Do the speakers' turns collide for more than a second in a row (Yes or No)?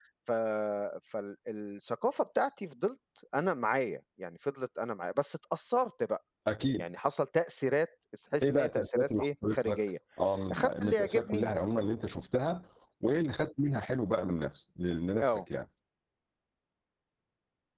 Yes